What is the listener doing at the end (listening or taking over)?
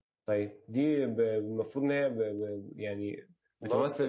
listening